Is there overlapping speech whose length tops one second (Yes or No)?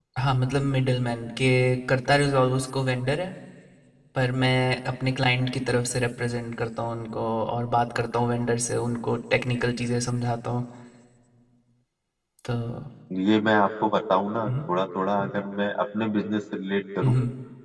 No